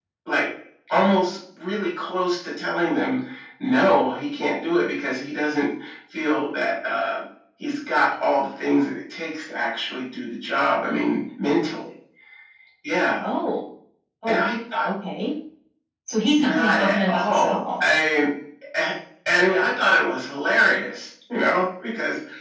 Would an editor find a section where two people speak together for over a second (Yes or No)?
Yes